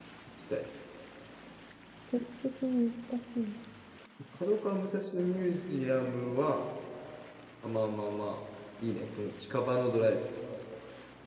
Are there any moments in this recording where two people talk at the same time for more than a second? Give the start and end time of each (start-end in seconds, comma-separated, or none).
none